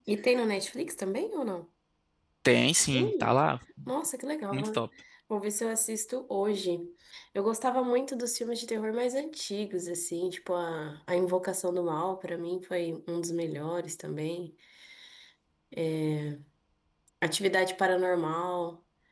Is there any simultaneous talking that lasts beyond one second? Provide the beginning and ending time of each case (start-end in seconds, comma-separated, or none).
none